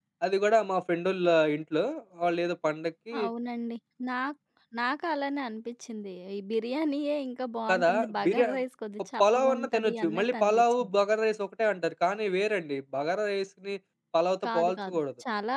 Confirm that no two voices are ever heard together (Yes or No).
No